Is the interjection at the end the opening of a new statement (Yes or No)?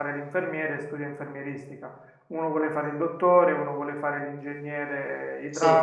No